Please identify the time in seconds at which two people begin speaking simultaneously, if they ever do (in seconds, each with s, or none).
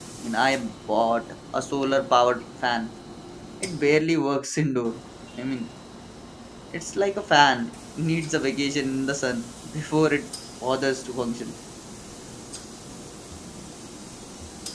none